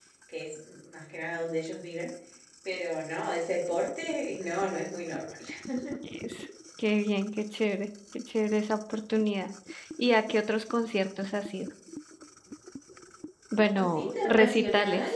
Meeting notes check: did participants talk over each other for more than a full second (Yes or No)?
Yes